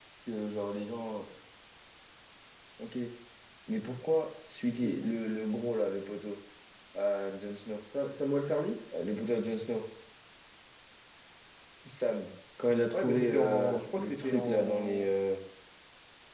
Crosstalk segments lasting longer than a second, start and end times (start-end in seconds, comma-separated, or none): 12.9-15.1